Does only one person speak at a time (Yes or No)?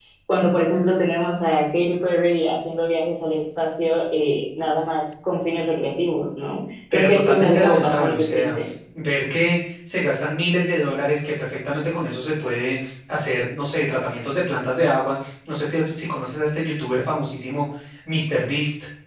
No